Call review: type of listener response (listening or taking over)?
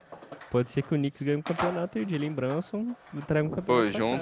taking over